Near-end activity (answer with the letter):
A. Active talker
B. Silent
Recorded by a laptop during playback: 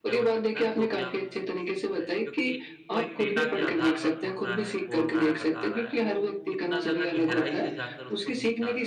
A